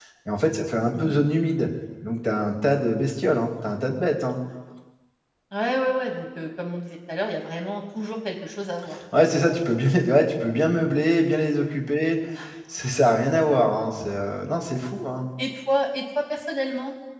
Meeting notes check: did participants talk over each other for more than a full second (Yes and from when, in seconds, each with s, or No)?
No